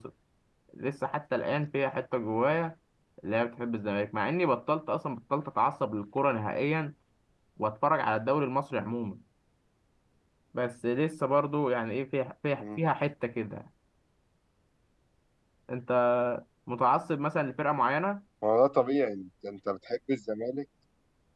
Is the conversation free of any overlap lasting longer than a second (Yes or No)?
Yes